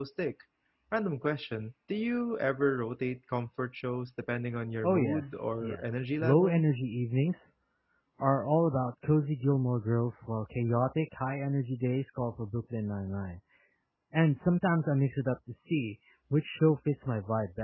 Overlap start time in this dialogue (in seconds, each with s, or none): 4.8 s